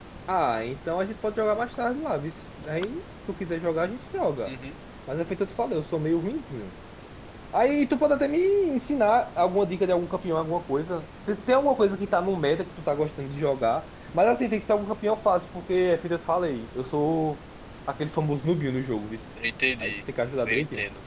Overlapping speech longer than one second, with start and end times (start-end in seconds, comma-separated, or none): none